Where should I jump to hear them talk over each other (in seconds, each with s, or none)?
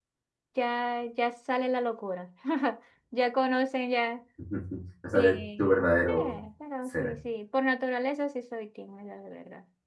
5.1 s